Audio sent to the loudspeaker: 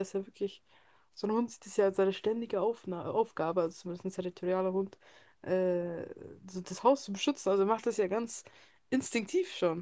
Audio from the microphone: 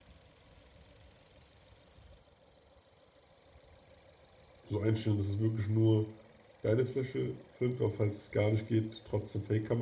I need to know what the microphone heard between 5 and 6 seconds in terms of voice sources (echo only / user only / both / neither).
user only